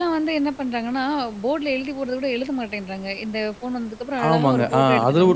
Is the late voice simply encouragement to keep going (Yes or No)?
No